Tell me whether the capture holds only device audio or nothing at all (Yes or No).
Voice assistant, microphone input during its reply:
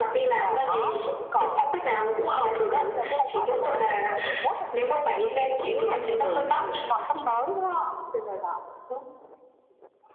Yes